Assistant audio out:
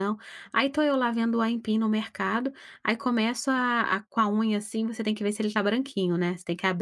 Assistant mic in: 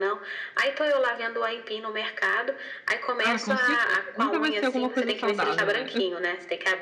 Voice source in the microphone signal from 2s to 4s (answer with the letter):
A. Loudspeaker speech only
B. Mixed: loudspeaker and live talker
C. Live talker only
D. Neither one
B